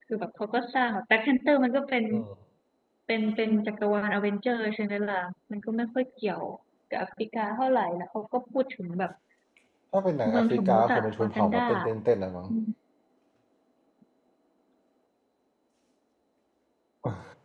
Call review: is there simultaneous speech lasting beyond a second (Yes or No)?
Yes